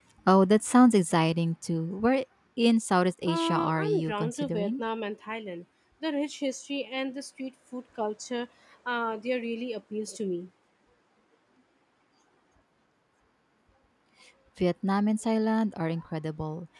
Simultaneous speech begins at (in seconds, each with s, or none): 3.3 s